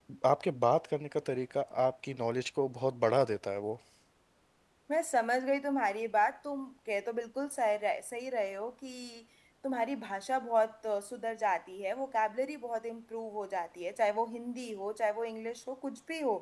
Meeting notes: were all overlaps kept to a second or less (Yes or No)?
Yes